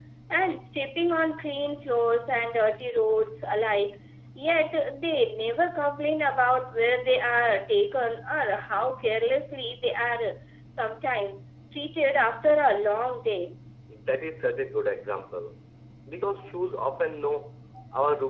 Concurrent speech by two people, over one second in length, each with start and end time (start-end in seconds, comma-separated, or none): none